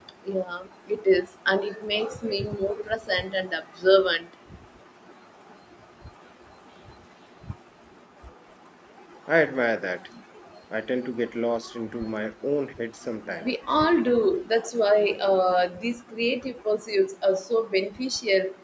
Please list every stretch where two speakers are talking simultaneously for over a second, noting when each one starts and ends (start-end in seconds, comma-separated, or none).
none